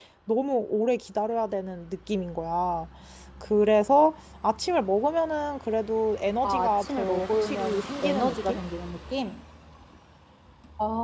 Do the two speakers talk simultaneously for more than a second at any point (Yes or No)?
Yes